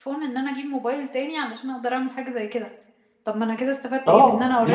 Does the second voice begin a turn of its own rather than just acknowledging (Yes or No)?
Yes